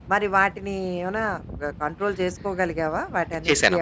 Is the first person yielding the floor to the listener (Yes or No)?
Yes